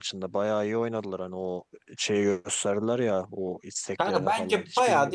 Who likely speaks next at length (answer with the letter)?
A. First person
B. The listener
B